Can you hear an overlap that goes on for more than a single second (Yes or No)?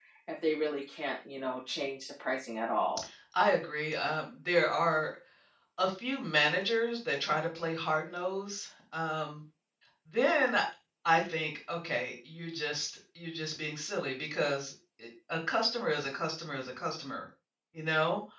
No